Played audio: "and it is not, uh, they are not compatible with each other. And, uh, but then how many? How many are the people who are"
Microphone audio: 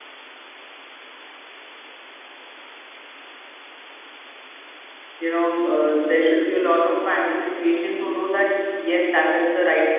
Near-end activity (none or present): present